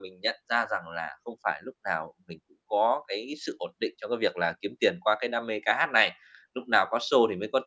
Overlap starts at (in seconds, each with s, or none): none